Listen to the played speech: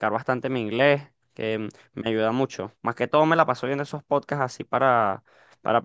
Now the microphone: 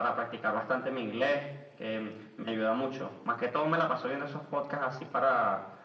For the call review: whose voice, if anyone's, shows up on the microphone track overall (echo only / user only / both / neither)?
echo only